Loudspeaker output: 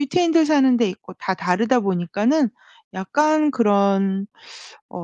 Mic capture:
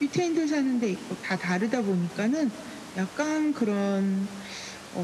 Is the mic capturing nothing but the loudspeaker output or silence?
Yes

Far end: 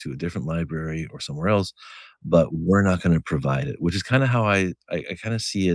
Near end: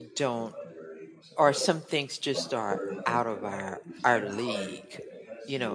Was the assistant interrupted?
Yes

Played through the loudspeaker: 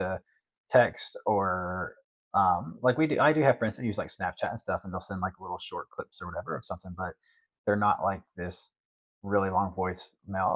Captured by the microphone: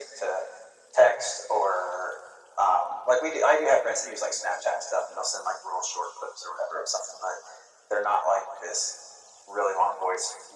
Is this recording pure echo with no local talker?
Yes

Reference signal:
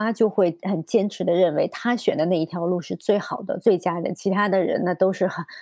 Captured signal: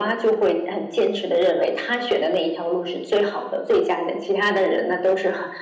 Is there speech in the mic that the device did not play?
No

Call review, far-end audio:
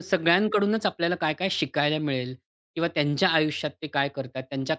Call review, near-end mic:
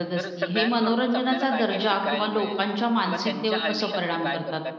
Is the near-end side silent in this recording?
No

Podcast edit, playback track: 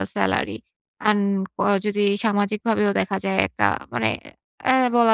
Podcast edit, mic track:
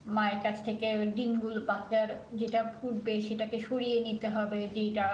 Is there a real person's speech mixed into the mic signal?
Yes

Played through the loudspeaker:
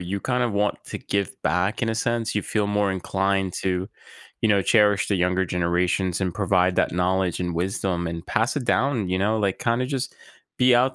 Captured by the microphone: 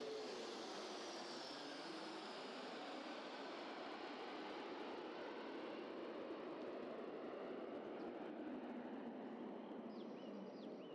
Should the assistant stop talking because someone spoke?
No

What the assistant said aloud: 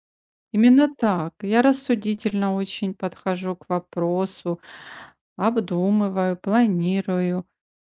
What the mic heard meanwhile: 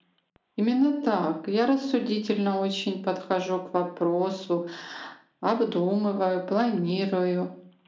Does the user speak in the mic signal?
No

